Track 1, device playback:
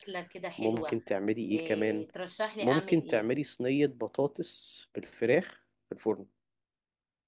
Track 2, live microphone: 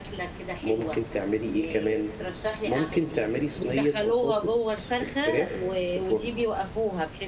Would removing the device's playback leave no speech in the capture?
No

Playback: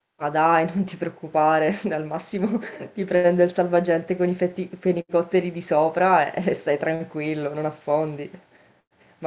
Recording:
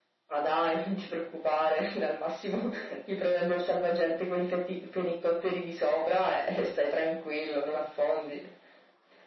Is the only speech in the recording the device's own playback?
Yes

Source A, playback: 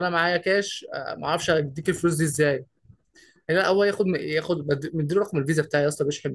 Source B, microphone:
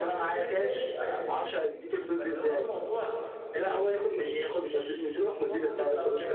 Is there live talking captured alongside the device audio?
Yes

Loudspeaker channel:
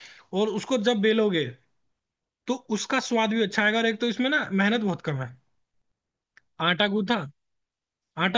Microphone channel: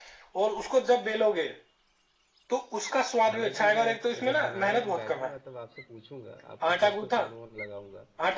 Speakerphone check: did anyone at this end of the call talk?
Yes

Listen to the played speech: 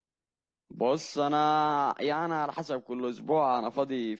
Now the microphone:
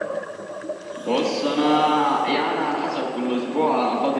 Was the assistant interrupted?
No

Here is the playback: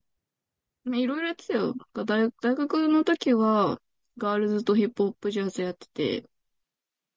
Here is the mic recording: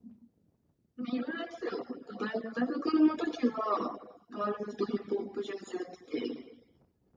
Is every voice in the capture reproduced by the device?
Yes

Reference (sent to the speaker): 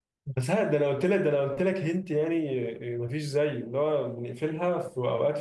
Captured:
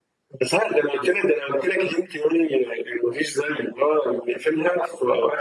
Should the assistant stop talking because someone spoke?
No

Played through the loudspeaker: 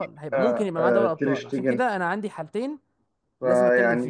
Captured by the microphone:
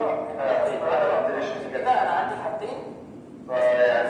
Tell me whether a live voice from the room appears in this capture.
No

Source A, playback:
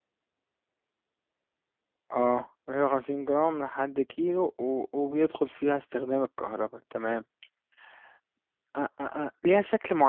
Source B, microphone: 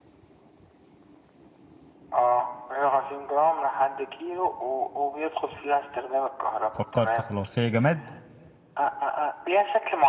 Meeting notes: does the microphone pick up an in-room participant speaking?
Yes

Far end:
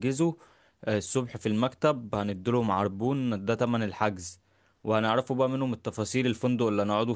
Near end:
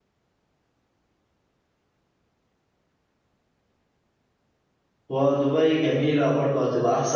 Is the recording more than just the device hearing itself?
Yes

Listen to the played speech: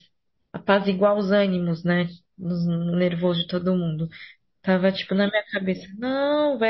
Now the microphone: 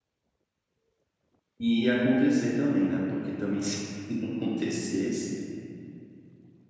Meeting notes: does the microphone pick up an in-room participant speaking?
Yes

